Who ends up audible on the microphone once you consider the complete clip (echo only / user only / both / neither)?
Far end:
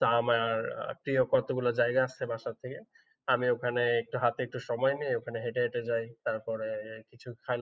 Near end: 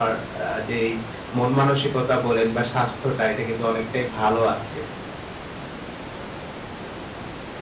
user only